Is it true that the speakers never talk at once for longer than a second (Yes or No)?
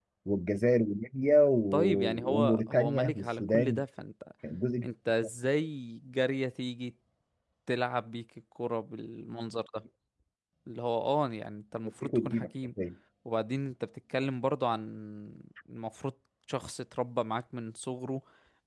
No